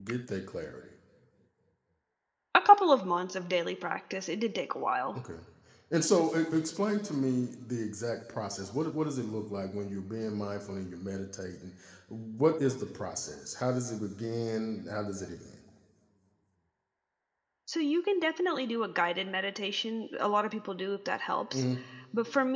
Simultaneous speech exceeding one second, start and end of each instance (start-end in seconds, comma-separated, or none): none